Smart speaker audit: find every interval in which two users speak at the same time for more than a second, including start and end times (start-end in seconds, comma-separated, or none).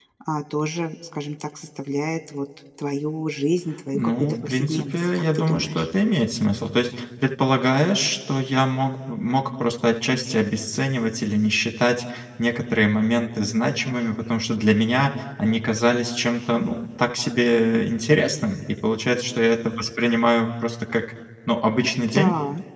3.9-5.9